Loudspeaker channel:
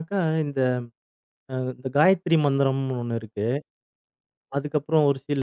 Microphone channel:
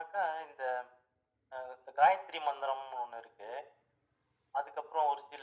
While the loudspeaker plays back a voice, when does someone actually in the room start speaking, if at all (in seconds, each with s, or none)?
none